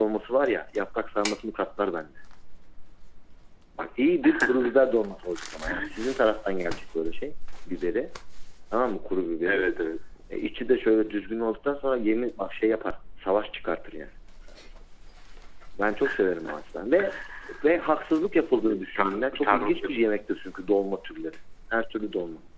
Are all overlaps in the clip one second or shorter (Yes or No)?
No